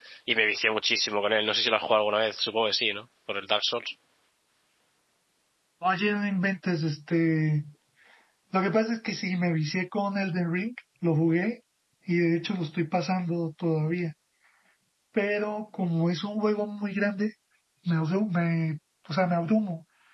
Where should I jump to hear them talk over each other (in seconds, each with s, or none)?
none